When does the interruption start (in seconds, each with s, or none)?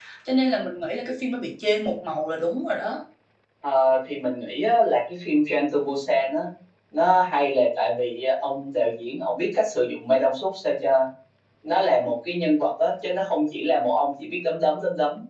none